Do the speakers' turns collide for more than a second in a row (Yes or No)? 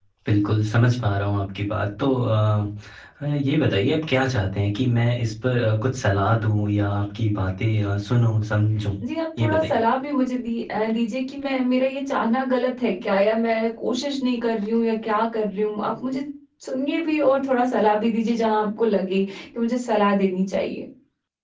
No